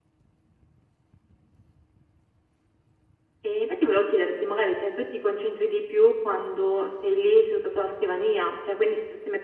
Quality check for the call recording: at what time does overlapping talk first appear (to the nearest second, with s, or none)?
none